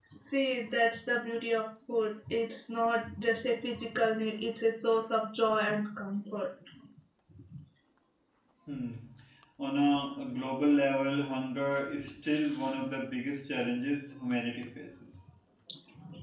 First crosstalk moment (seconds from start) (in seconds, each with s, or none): none